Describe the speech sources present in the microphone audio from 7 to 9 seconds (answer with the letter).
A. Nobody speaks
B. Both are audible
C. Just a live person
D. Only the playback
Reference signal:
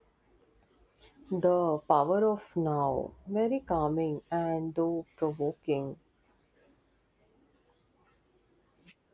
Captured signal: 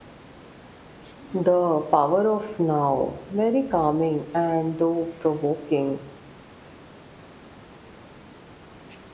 A